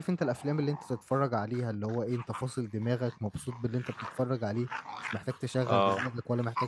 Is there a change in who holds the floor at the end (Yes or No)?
No